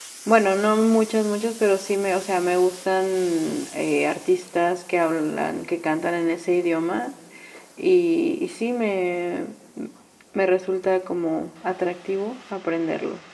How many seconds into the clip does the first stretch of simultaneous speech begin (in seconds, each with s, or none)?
none